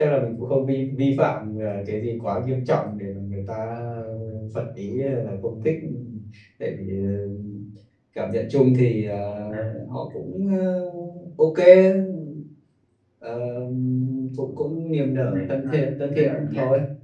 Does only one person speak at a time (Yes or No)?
No